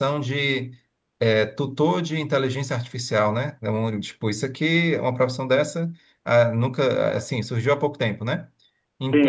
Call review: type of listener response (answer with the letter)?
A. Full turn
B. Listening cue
A